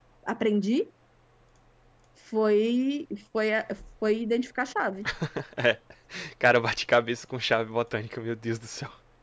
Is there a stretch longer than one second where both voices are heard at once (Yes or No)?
No